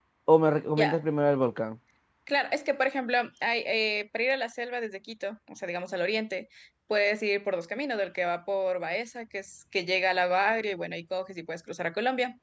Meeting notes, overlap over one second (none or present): none